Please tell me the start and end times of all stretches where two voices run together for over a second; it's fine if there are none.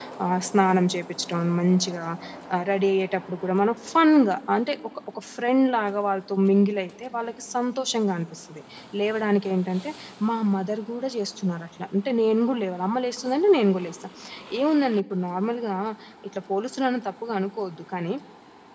none

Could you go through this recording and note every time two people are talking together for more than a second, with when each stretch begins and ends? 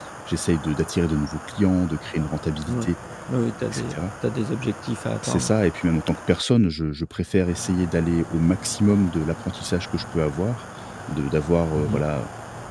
none

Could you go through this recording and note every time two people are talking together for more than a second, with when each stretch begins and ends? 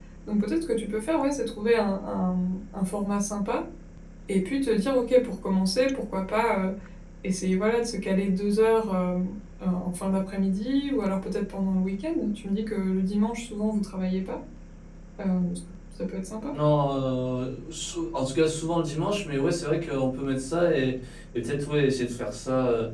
none

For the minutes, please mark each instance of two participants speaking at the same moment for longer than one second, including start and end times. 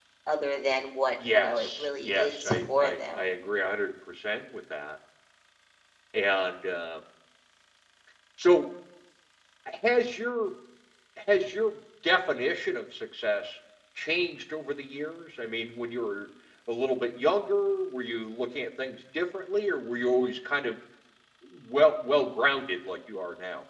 1.3-3.2

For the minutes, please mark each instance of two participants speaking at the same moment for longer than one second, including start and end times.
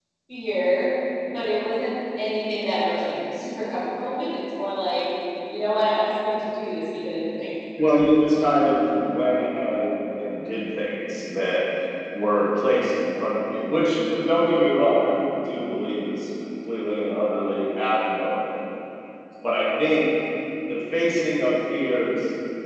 none

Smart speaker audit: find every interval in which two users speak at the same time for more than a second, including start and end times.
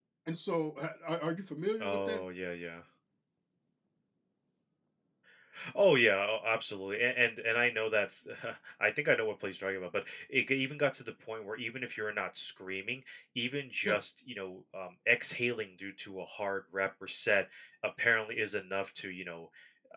none

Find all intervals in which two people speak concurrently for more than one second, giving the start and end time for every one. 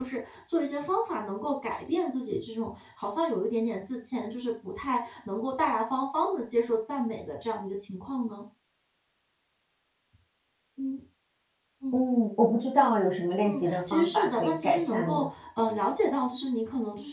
13.5-15.2

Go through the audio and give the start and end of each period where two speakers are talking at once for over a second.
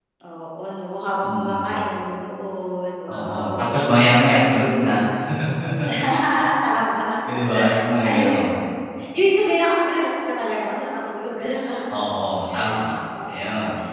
3.1-4.5

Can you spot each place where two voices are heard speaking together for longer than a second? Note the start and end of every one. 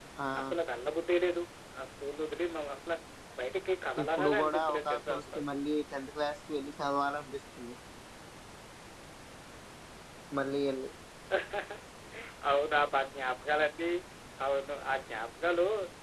4.0-5.4

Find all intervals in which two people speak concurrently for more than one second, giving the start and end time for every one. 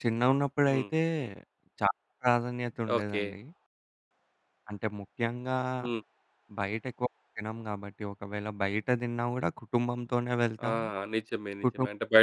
none

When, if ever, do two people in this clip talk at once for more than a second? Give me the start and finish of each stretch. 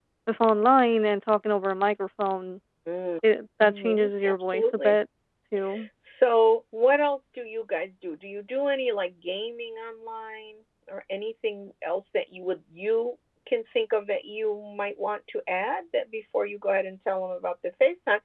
3.6-5.0

